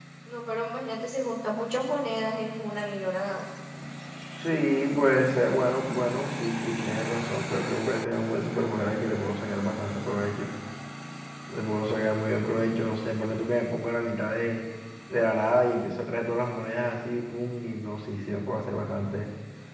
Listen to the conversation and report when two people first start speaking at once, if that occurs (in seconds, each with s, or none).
none